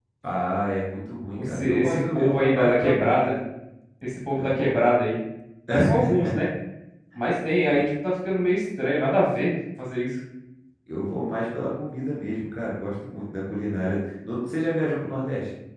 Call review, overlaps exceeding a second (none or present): present